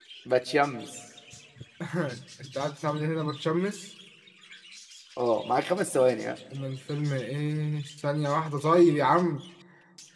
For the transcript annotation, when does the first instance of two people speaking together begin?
none

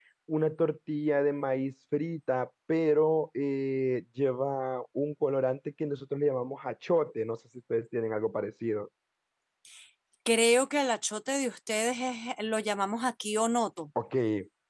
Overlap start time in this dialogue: none

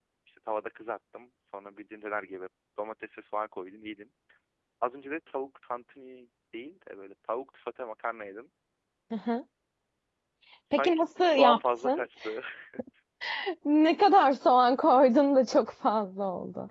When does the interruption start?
10.7 s

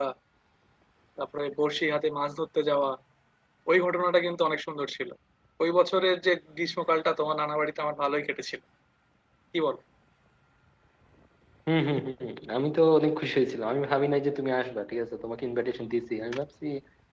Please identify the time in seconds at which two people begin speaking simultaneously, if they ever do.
none

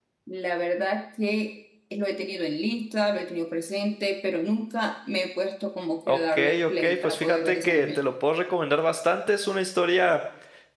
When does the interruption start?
6.1 s

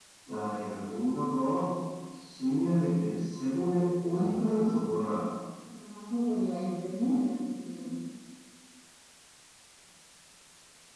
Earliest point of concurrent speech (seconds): none

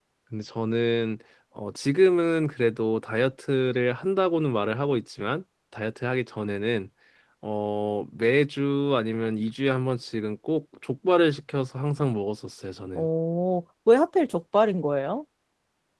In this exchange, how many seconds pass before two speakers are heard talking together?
none

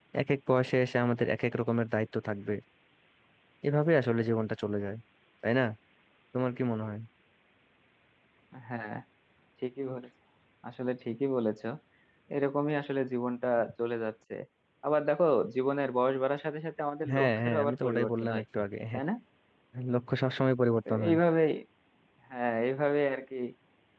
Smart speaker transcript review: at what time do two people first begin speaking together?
17.1 s

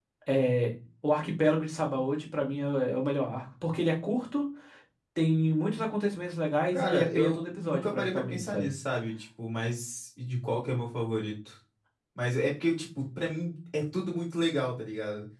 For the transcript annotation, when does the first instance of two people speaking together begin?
6.7 s

